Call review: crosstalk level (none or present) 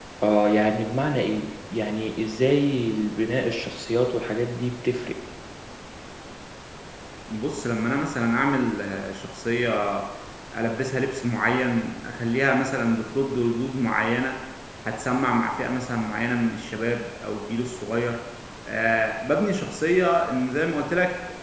none